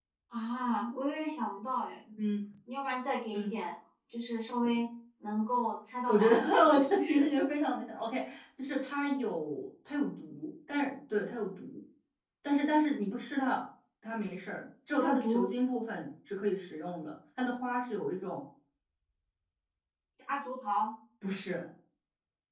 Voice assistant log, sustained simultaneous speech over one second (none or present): present